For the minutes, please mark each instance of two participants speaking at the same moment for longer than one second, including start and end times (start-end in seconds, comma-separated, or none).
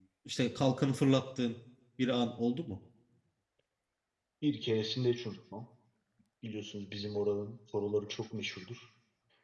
none